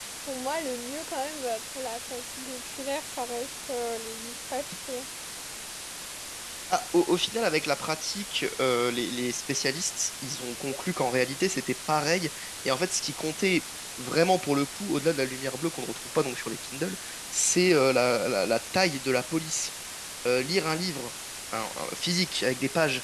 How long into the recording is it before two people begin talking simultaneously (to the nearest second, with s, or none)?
none